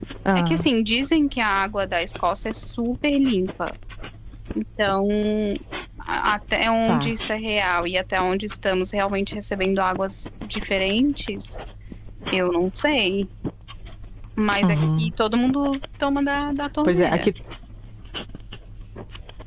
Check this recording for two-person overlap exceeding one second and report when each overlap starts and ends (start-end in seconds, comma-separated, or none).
none